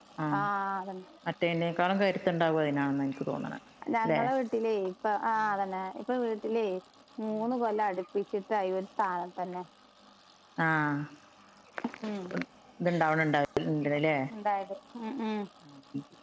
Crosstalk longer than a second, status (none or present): none